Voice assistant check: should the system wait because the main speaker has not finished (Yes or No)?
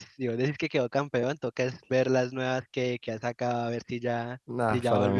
No